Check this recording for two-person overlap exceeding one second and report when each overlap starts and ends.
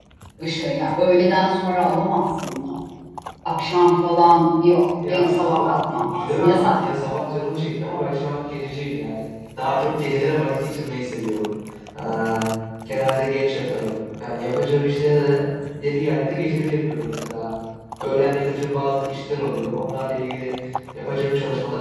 5.1-6.8

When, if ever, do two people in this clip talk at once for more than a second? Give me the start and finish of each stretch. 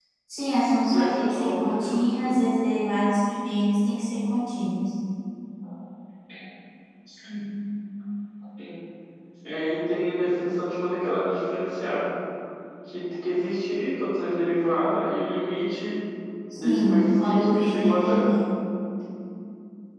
0.9-2.3, 16.6-18.3

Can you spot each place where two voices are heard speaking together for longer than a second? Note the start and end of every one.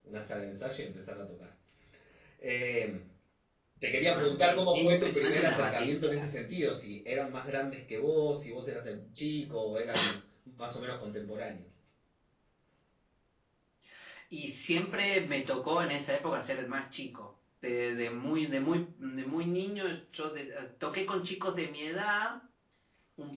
4.0-6.1

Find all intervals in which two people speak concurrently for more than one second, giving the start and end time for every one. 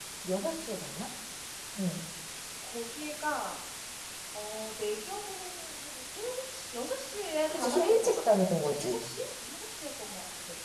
7.5-9.0

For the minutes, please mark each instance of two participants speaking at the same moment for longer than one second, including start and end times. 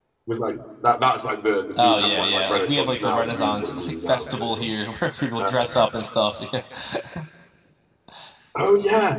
1.8-4.8

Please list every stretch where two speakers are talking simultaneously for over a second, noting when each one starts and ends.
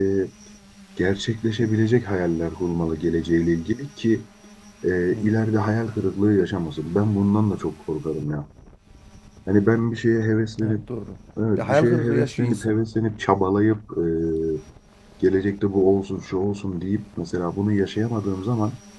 11.6-12.8

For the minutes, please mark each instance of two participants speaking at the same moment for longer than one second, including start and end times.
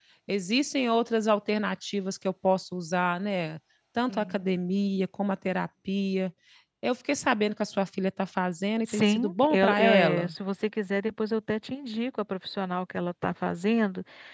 8.9-10.3

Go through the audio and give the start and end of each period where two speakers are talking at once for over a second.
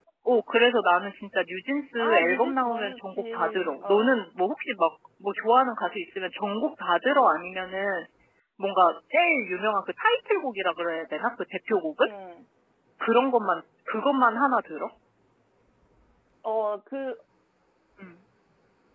2.0-4.1

